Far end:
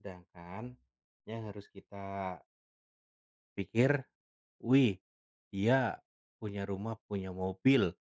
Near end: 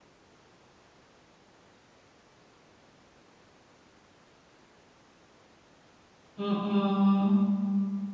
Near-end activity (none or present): present